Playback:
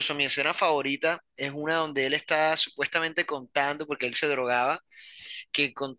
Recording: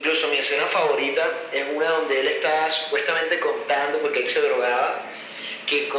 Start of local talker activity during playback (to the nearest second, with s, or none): none